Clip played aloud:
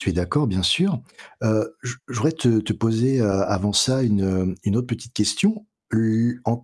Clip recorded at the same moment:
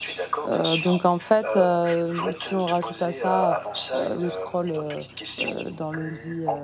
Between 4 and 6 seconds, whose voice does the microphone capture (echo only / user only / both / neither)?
both